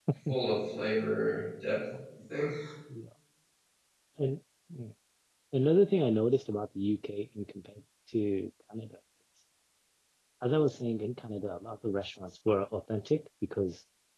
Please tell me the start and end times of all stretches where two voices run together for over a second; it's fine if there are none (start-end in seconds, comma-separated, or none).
none